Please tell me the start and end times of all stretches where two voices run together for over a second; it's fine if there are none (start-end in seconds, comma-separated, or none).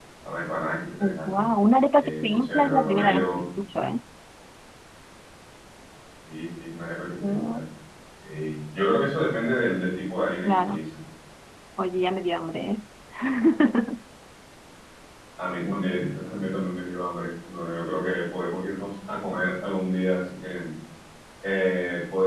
2.0-3.4